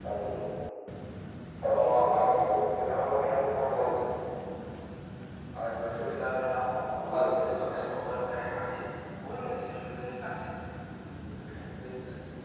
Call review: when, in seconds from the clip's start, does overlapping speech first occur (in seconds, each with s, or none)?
1.6 s